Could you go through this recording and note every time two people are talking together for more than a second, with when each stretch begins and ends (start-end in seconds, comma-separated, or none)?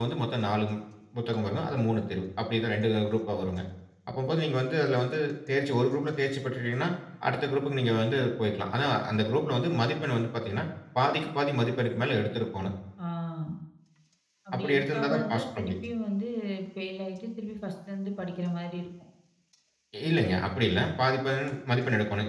14.6-15.8